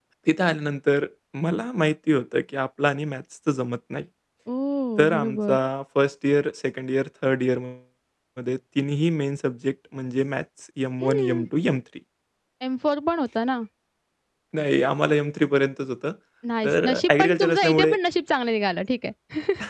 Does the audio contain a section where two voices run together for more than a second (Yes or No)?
Yes